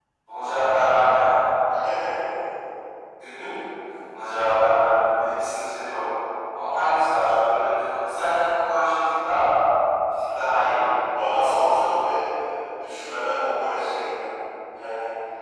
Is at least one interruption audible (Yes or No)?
No